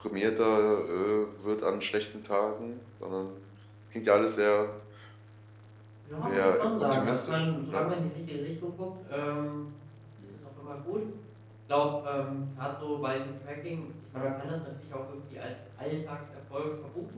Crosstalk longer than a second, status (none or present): present